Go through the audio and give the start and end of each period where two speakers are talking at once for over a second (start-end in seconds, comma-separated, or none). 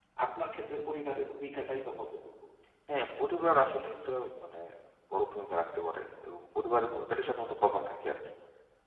none